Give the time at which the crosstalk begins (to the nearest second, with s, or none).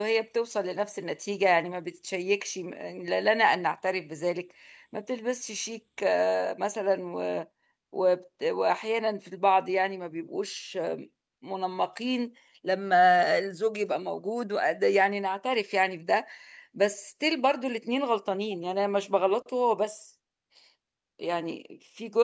none